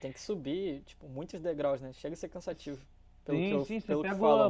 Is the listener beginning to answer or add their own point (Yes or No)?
Yes